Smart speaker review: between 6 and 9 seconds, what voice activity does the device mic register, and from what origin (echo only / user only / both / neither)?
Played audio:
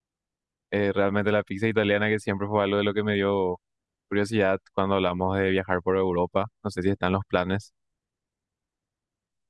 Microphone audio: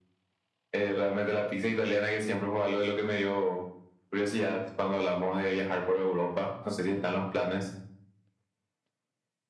echo only